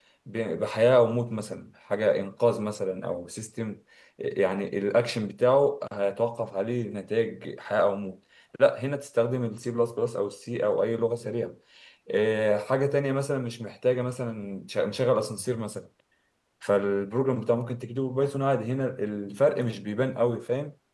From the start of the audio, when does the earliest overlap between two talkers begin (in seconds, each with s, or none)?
none